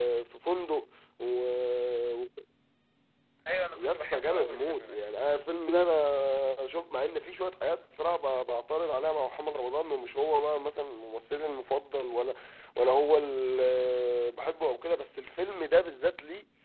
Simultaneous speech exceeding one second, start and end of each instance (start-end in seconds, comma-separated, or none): 3.8-5.0